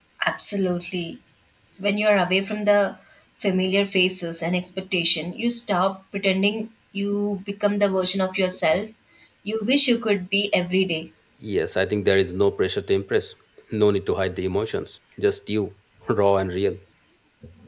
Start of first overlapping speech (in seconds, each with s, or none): none